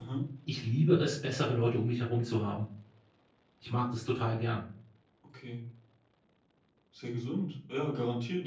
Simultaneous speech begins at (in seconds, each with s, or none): none